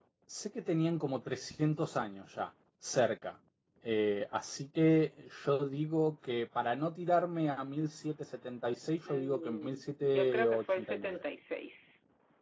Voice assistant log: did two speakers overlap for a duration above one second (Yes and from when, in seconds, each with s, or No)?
Yes, from 9.0 s